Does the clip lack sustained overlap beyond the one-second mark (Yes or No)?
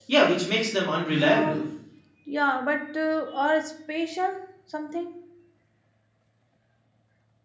Yes